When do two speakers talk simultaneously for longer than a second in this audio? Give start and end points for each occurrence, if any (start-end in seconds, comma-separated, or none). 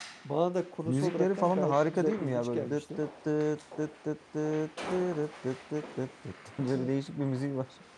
0.8-3.0